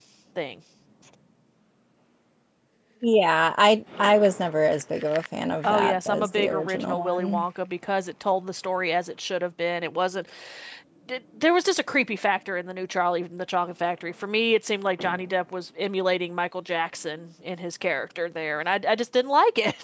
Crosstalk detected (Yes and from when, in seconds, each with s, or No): Yes, from 5.6 s